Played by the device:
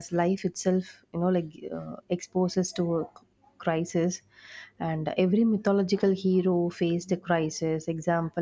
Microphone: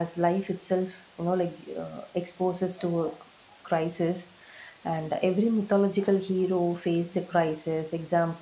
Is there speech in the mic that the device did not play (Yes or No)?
No